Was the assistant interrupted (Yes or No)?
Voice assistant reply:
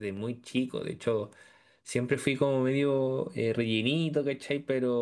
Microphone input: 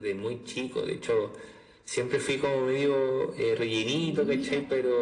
Yes